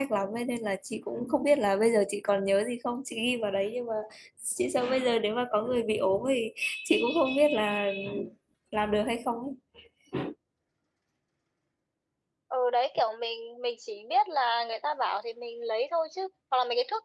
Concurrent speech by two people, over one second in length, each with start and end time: none

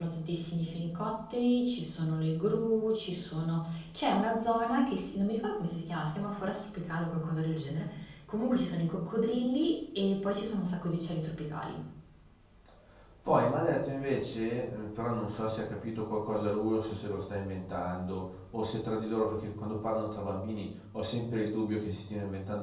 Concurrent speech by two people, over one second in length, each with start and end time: none

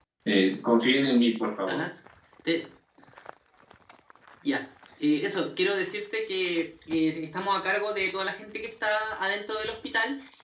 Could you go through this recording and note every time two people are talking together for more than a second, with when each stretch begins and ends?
none

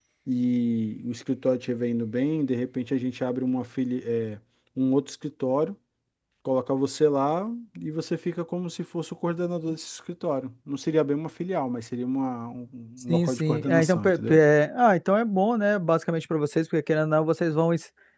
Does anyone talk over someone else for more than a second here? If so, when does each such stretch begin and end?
13.1-14.4

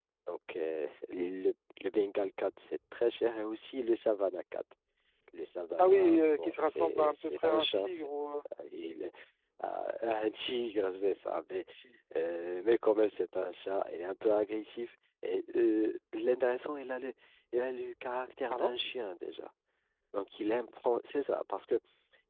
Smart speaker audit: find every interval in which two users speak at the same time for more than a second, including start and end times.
5.8-7.8

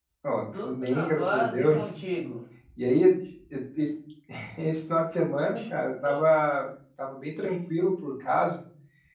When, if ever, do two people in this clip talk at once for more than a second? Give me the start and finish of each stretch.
0.5-1.8

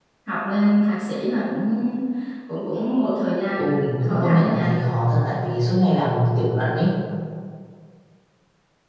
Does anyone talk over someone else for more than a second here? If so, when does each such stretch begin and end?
3.6-4.8

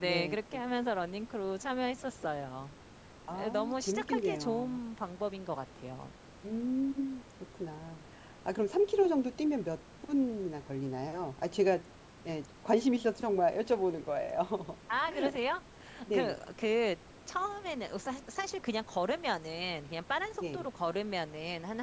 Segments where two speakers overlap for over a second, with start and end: 3.3-4.8

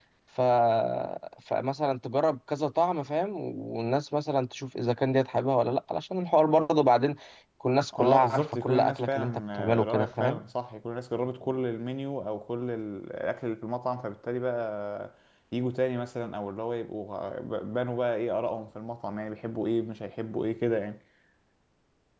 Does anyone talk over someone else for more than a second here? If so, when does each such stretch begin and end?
7.9-10.4

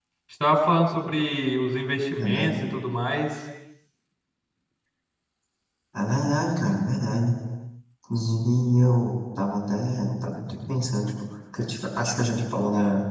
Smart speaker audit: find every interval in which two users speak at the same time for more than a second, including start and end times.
none

